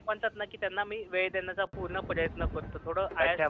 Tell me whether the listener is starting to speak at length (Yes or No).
Yes